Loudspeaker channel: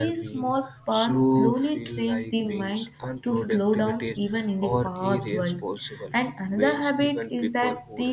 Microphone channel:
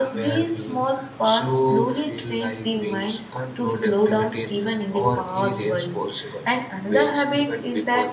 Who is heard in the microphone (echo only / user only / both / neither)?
echo only